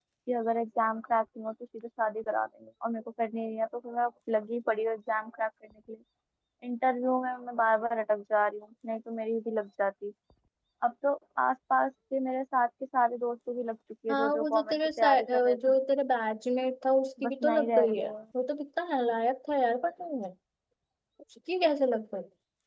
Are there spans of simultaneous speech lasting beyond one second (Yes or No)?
Yes